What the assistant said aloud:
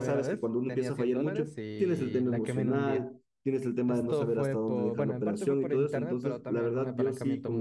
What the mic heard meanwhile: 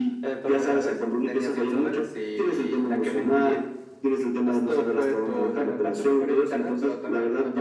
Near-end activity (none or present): none